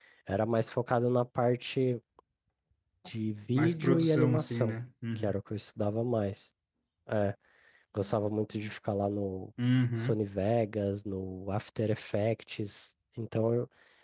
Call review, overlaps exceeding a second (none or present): present